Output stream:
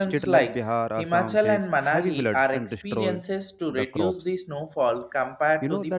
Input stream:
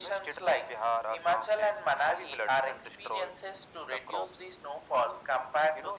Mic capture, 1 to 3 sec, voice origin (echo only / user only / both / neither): echo only